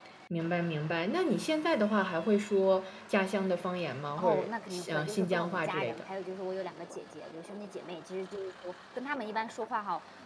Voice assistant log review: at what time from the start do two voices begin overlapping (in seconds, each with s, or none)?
4.2 s